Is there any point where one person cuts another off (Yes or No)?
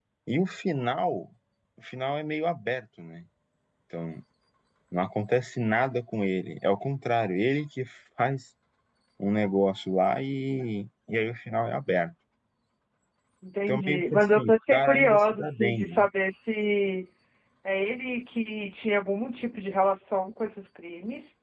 Yes